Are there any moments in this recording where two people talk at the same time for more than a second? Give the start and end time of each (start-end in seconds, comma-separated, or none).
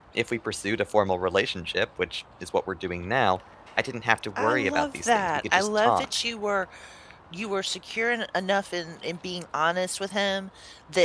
4.4-6.0